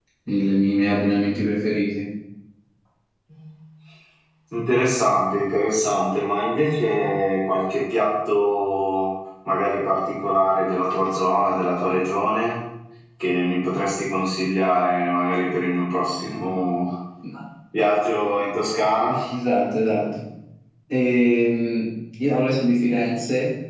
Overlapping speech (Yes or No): No